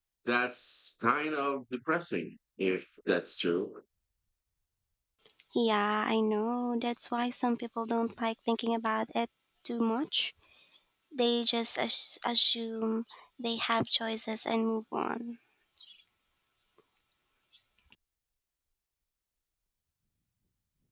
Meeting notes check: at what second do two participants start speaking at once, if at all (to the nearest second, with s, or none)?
none